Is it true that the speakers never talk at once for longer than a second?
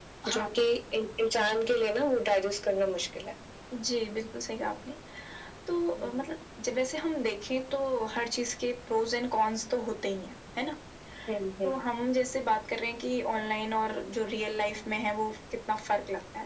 Yes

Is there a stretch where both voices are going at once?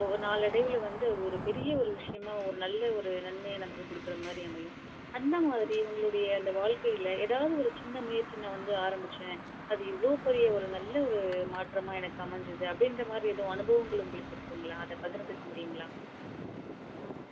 No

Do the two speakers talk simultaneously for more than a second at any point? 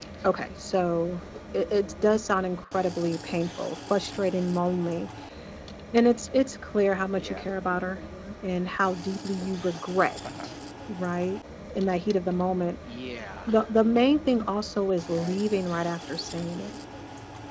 No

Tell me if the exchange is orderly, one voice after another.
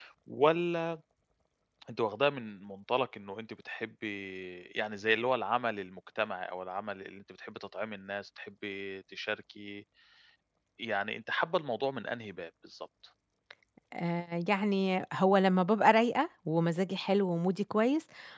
Yes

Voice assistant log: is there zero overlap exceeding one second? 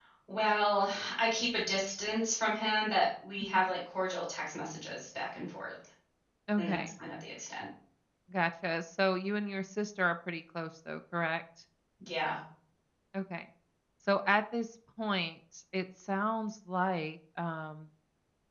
Yes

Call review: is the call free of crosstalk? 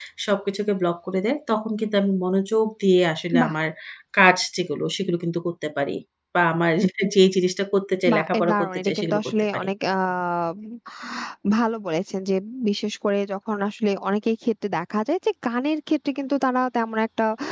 No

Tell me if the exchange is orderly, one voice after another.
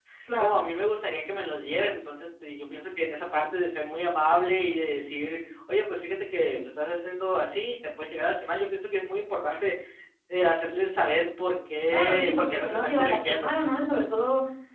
No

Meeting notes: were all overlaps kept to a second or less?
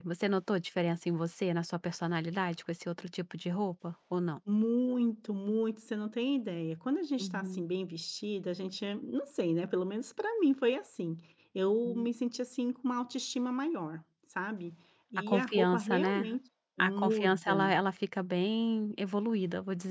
No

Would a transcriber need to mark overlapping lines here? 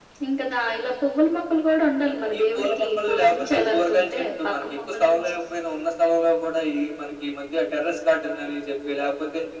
Yes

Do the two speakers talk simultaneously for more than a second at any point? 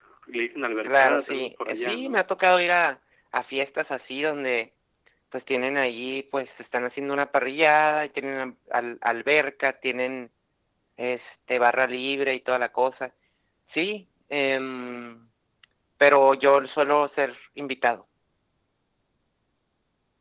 Yes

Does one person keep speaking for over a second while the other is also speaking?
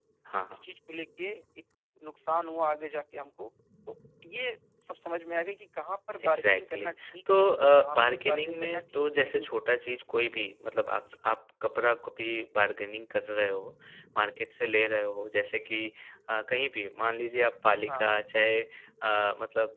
Yes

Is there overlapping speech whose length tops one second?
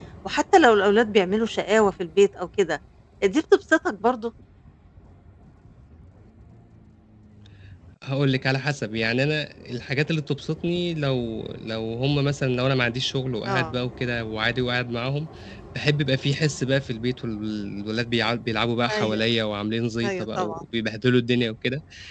No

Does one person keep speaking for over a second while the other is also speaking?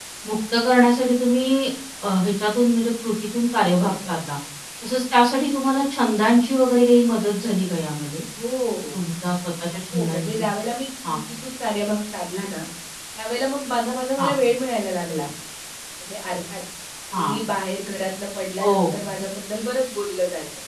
No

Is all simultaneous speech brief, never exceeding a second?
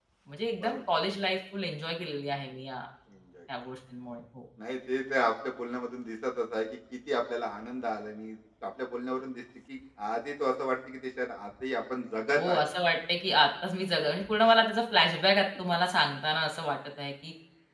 Yes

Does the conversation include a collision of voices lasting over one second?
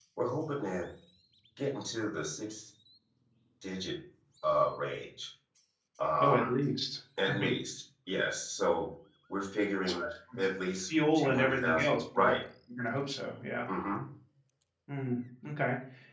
Yes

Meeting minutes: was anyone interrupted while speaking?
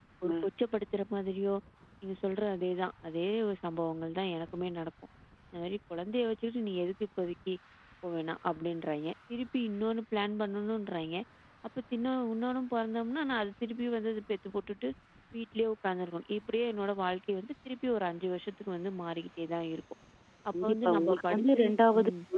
Yes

